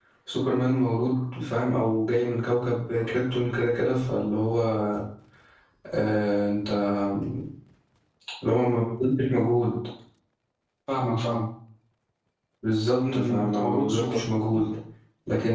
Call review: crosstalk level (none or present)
present